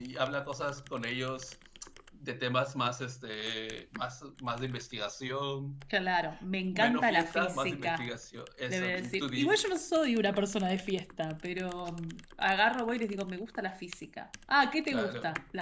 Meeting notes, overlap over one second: present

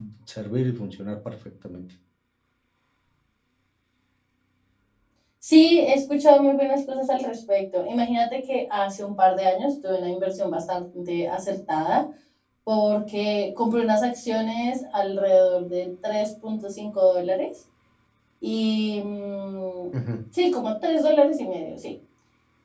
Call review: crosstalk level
none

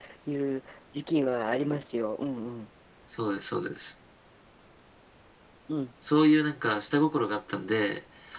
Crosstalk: none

